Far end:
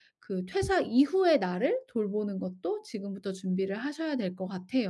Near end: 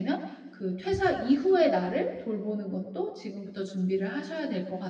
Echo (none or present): present